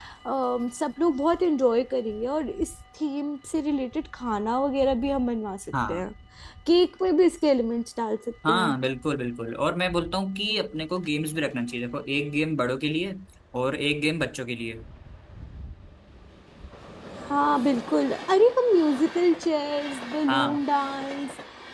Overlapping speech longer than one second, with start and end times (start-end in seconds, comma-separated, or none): none